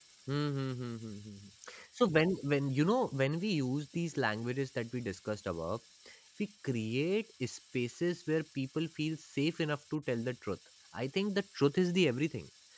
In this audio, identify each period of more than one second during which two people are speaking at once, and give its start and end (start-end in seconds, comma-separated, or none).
none